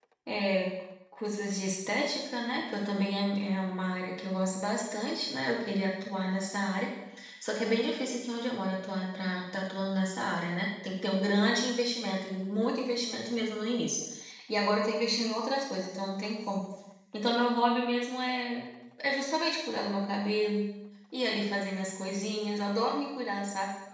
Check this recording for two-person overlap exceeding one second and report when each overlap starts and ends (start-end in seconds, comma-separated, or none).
none